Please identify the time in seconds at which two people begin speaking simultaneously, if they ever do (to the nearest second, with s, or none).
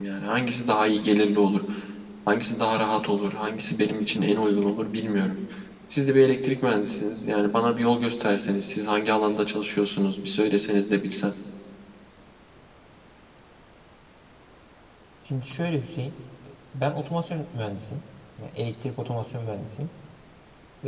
none